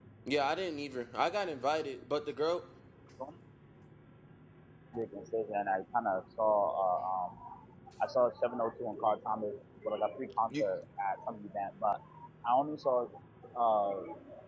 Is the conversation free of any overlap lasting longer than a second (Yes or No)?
Yes